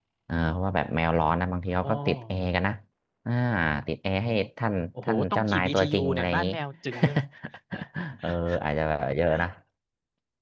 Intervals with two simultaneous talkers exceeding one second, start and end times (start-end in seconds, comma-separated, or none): 5.0-6.5